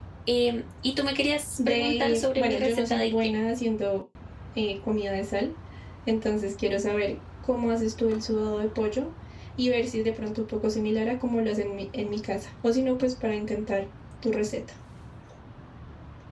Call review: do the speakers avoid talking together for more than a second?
No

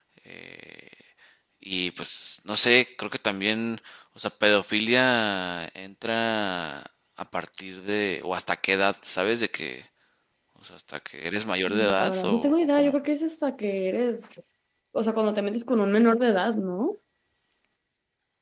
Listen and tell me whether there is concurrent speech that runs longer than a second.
Yes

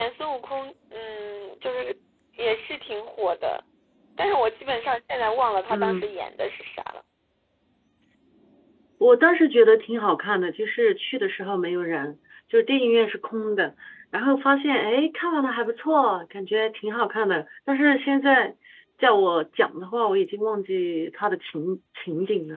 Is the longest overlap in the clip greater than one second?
No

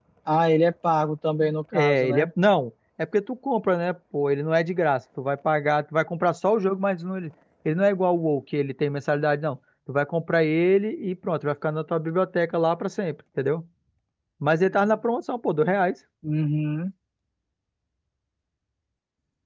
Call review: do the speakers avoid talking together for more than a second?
Yes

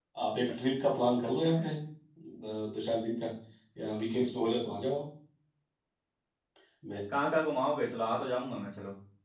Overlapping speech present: No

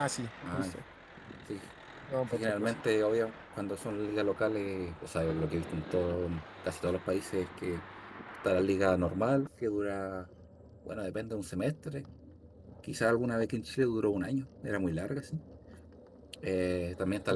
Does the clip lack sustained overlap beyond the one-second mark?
Yes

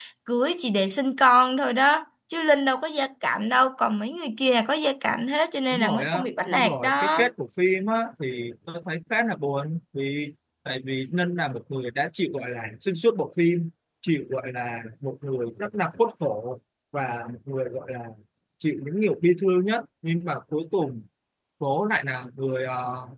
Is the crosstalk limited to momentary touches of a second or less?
No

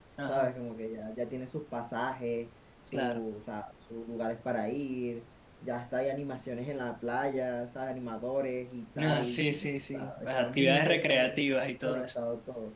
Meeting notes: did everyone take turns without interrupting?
No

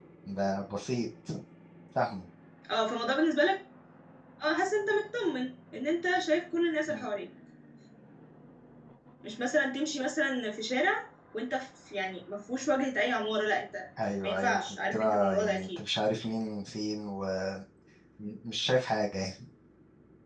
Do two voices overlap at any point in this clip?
Yes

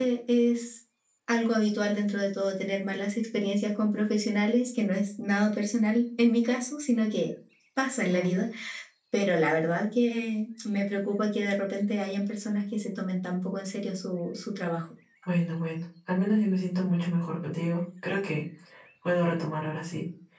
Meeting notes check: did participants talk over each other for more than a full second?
No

